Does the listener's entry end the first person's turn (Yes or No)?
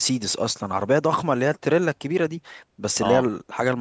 No